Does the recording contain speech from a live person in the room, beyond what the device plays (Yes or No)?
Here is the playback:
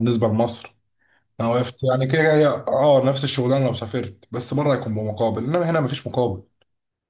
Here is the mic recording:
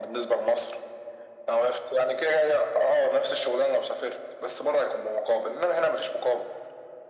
No